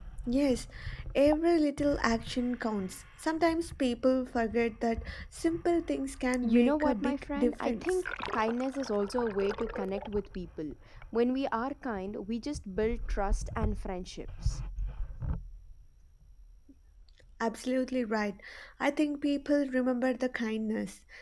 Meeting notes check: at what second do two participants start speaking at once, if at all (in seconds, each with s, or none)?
6.4 s